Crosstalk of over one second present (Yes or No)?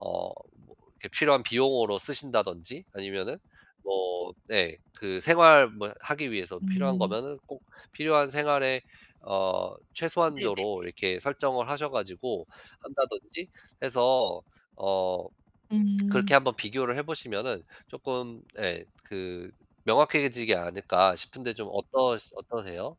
No